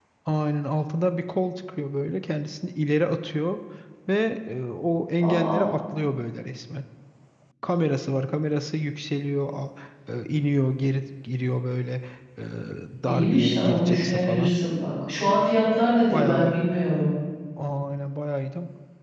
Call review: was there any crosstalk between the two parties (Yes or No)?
Yes